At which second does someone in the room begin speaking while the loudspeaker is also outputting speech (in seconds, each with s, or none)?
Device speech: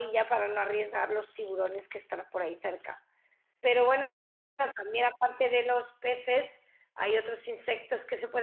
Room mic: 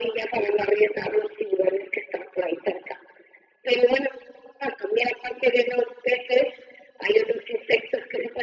none